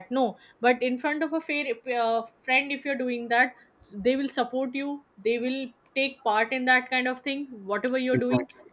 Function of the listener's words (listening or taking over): listening